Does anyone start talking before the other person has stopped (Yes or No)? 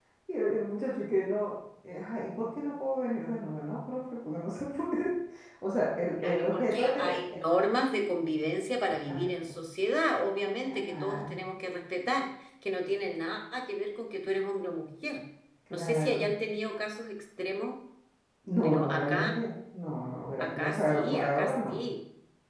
Yes